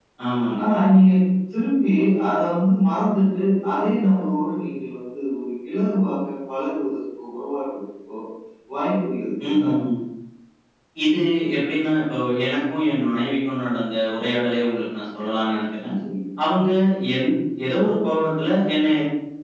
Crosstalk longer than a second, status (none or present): none